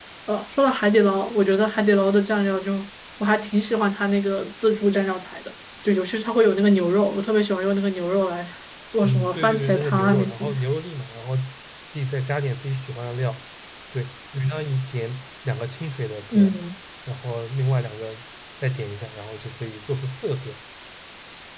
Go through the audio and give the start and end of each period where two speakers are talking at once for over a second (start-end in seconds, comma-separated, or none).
9.0-10.5